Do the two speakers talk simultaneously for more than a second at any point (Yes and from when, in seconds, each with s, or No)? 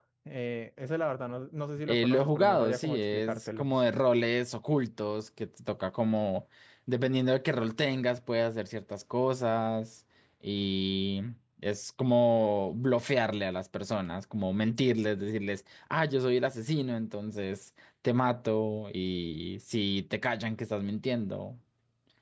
Yes, from 1.9 s